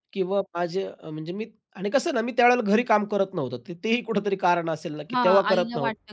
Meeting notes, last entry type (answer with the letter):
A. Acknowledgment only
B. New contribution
B